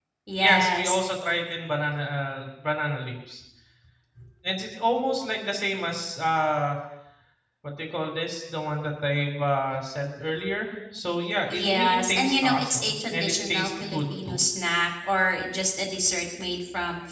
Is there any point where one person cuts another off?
Yes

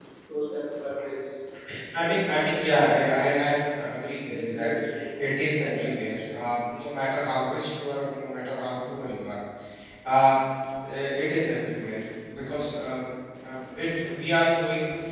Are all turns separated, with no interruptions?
No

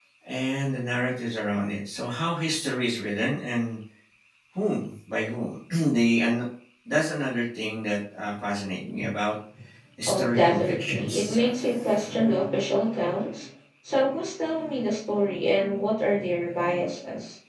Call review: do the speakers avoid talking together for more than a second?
No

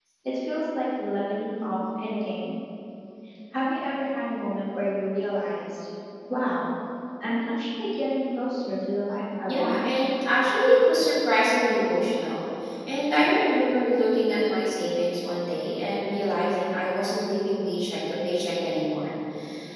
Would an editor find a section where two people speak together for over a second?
No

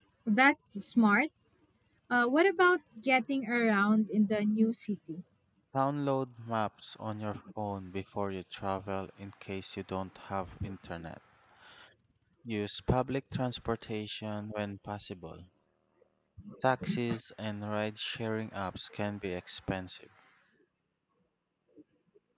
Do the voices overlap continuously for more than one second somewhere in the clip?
No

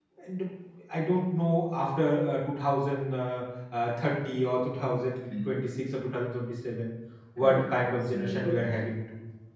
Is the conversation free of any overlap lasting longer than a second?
No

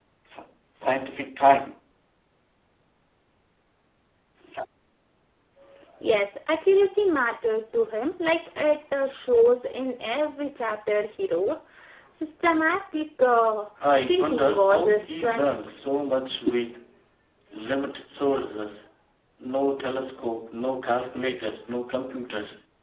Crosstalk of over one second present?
Yes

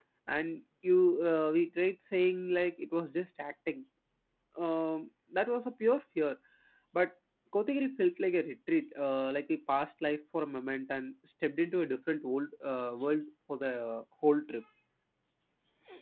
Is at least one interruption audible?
No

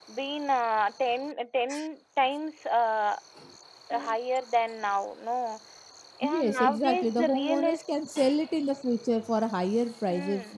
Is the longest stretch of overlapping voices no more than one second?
No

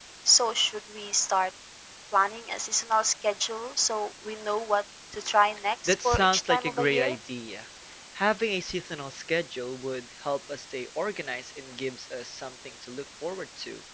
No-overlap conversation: No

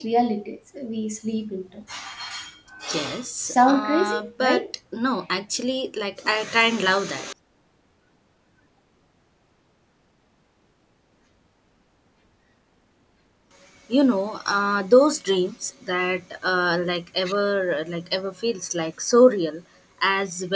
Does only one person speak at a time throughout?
No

